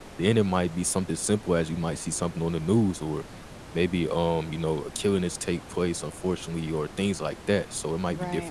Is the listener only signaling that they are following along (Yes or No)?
Yes